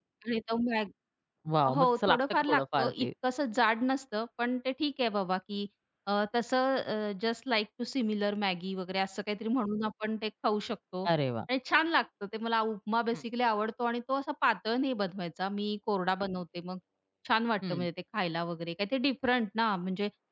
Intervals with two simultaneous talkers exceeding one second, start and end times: 1.8-3.1

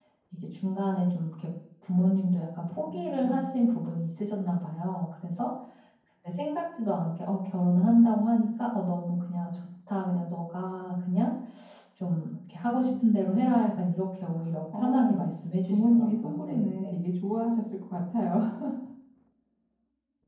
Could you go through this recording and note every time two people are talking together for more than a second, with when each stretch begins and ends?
15.6-16.9

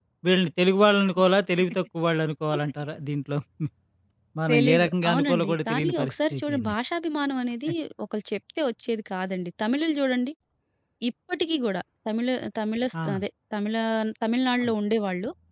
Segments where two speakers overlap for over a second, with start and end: 4.5-6.8

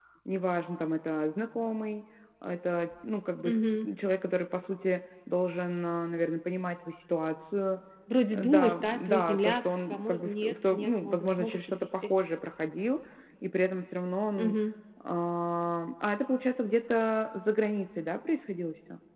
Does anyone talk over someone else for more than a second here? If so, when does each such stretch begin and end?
8.3-12.1

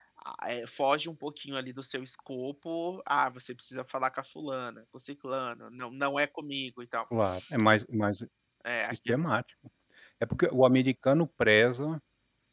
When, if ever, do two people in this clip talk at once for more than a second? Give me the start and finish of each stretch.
none

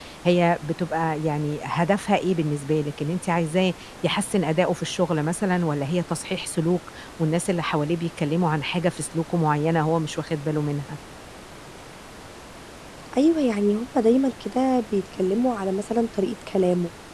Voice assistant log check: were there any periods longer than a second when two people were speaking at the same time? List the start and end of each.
none

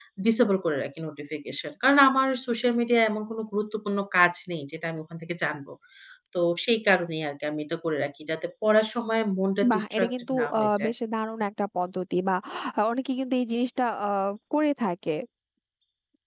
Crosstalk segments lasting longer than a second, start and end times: 9.7-10.9

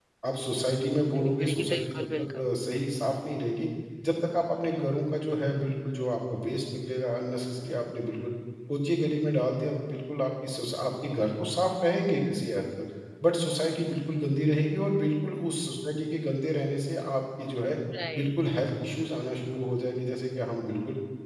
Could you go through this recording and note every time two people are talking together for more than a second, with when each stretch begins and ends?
1.2-2.4

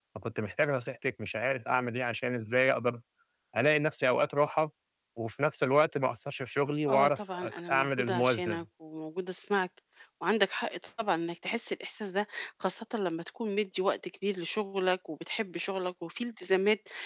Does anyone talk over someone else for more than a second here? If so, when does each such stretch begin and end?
6.9-8.6

